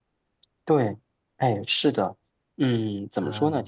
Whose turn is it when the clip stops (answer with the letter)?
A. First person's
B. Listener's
A